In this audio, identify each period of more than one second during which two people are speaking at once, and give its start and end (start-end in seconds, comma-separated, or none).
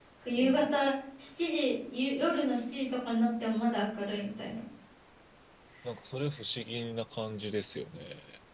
none